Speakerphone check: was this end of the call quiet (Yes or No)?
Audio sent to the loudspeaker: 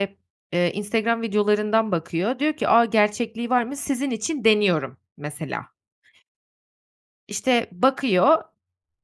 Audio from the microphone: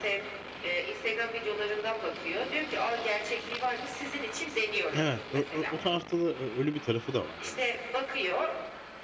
No